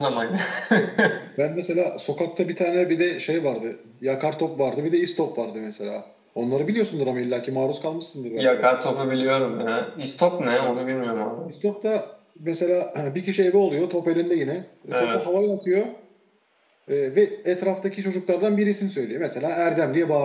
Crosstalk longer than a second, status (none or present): none